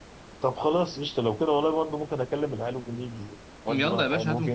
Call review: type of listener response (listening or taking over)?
taking over